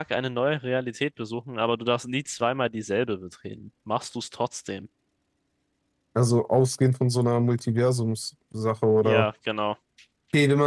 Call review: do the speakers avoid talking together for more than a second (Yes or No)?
Yes